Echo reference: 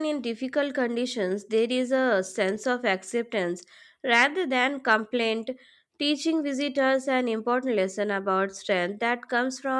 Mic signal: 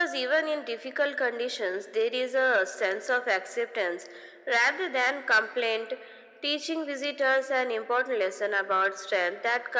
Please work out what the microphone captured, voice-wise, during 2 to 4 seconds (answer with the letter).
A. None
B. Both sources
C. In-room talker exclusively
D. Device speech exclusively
D